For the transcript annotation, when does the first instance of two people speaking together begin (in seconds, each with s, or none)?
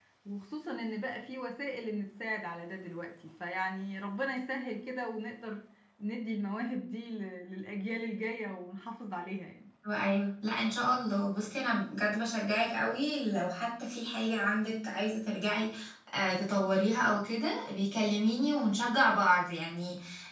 none